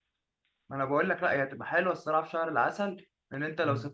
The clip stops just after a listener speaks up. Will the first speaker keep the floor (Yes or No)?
No